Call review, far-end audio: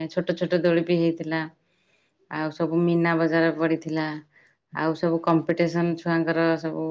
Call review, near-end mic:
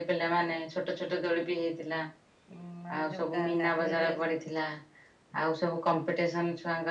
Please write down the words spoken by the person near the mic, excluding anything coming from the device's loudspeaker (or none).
ଉଁ ମାନେ ଯୋଟା ଗାଧେଇବେ।